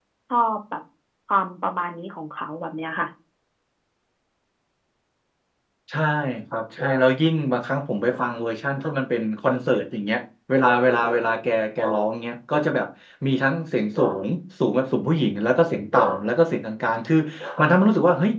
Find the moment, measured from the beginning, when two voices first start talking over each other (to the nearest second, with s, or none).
none